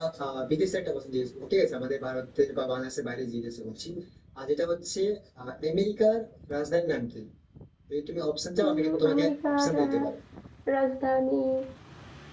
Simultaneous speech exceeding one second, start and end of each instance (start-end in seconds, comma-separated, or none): 8.7-10.1